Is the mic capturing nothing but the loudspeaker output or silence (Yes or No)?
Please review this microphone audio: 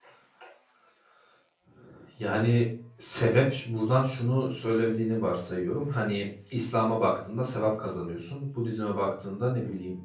No